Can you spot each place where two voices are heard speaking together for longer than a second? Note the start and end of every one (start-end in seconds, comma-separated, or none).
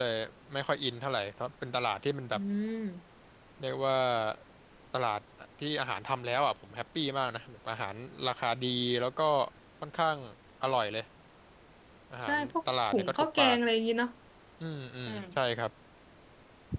12.3-13.6